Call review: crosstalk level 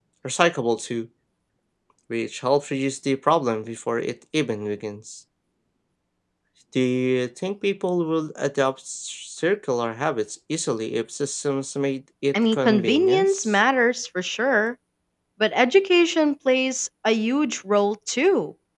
present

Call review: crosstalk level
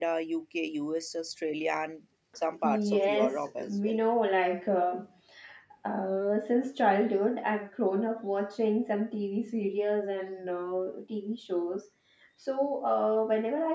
present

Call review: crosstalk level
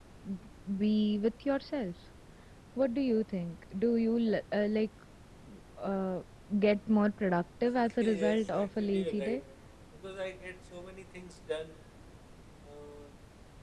present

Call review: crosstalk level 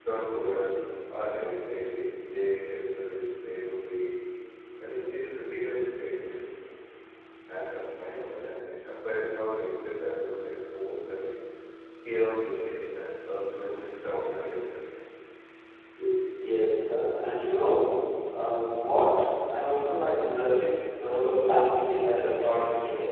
none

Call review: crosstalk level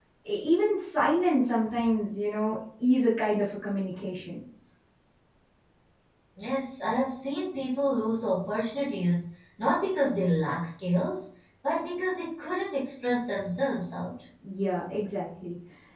none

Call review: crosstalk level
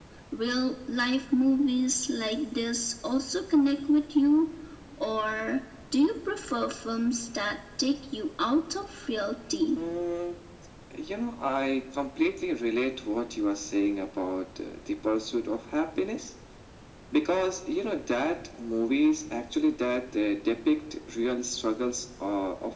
none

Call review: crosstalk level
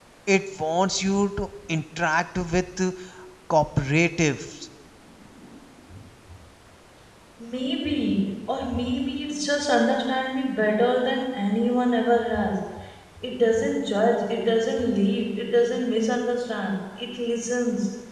none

